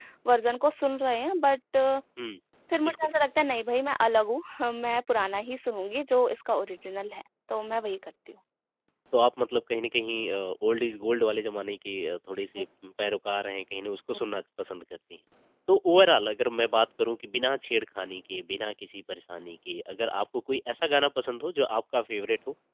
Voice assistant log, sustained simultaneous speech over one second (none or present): none